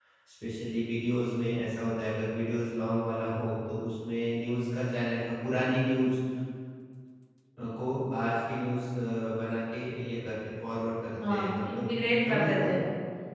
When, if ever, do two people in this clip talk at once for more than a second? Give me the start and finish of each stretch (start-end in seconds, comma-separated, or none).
11.3-12.7